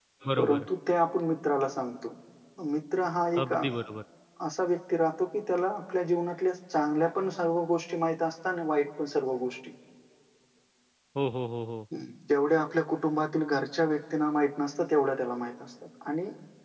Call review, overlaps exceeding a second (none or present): none